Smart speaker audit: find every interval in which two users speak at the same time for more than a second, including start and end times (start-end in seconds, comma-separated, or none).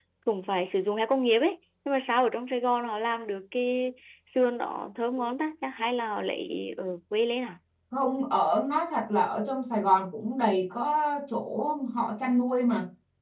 none